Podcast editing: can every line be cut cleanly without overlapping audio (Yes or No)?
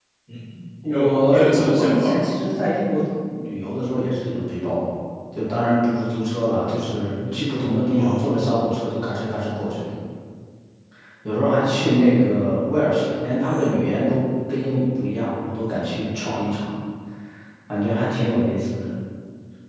No